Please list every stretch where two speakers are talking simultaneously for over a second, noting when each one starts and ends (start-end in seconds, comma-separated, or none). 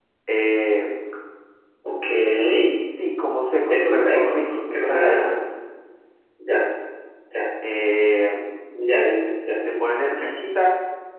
3.6-5.4